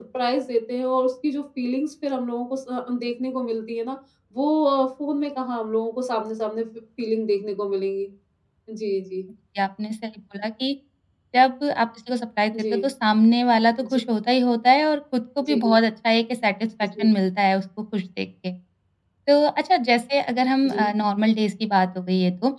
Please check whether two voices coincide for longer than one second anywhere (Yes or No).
No